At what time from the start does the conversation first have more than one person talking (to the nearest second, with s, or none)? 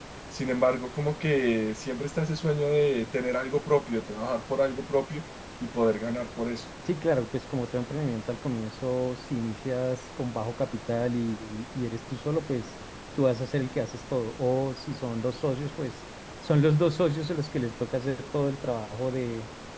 none